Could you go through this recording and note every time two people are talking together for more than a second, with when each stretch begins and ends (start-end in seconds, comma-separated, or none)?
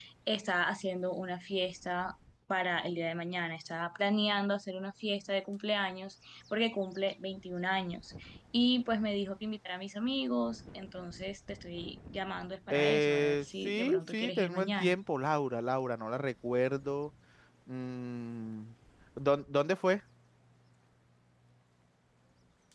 12.7-15.0